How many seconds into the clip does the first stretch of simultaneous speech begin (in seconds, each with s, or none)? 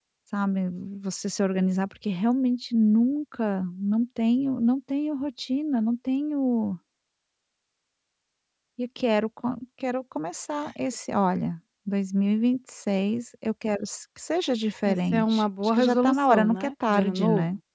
14.8 s